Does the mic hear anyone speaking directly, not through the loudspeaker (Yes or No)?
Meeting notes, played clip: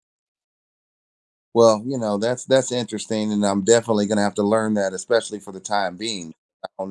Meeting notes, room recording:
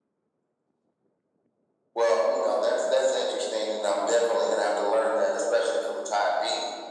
No